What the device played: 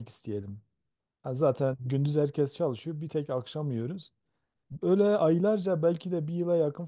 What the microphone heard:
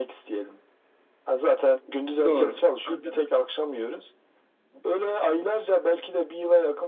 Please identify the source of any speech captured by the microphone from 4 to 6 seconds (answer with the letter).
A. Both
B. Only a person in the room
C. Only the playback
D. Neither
C